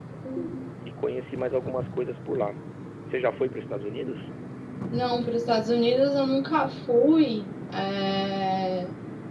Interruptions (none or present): none